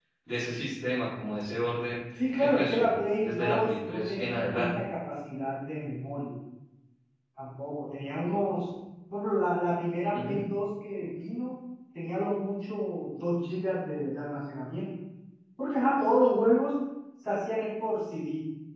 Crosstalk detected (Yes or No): Yes